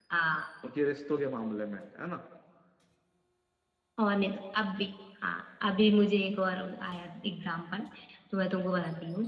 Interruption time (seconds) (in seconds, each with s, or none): none